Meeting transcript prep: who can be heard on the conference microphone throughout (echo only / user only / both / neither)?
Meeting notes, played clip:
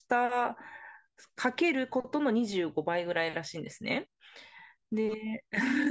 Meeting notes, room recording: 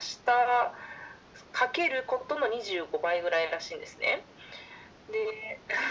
echo only